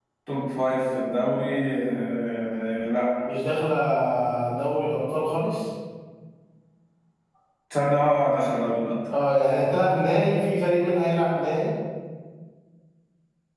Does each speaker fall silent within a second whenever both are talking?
Yes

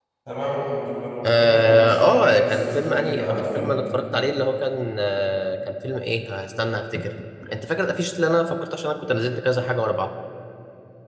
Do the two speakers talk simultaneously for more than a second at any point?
Yes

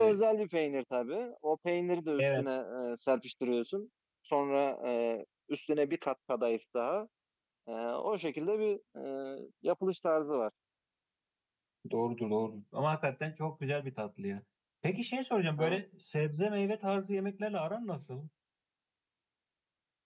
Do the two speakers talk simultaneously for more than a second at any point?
No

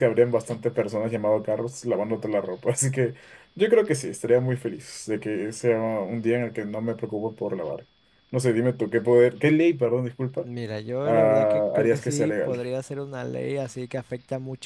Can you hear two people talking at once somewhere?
Yes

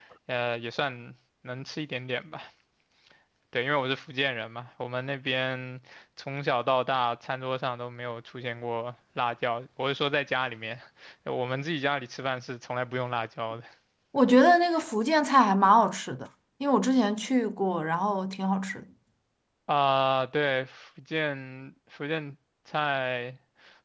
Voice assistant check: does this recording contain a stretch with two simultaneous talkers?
No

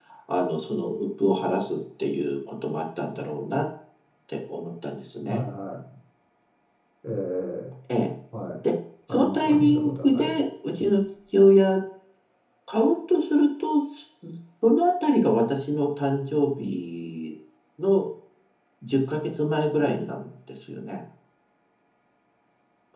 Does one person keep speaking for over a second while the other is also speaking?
Yes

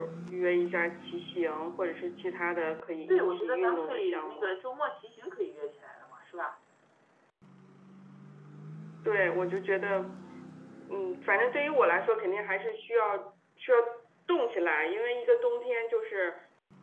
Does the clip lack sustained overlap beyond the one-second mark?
No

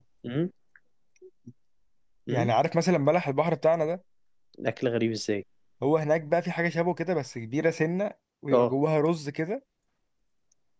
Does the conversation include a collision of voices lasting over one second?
No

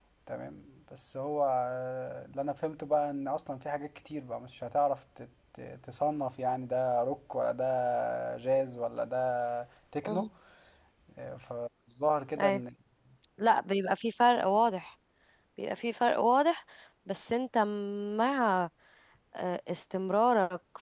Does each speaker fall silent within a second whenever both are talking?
Yes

